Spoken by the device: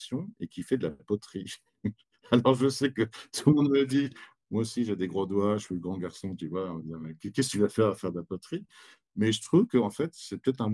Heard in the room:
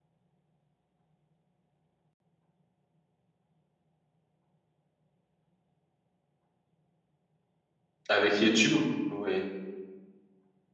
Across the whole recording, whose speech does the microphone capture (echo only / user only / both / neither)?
user only